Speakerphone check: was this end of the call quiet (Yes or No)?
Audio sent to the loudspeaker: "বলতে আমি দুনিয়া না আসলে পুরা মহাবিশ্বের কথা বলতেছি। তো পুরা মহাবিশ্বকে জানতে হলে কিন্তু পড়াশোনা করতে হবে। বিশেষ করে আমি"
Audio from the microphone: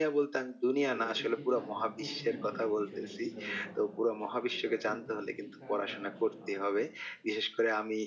No